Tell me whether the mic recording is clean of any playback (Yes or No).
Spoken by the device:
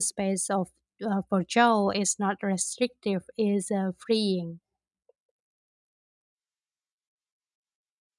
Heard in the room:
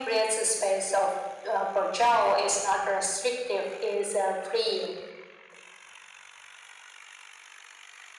No